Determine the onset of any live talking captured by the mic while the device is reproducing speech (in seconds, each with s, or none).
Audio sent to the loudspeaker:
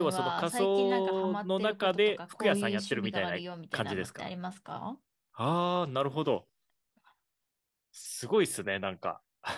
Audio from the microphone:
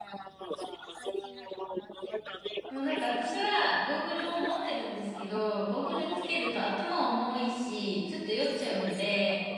2.7 s